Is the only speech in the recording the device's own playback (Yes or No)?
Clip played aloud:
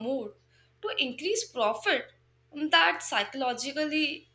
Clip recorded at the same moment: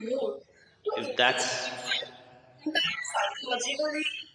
No